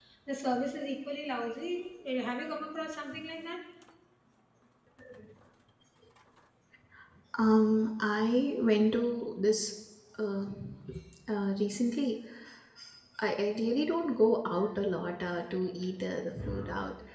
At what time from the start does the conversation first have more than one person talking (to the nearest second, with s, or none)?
none